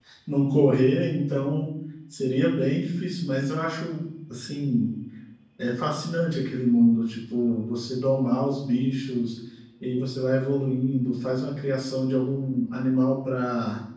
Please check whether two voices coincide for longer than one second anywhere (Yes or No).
No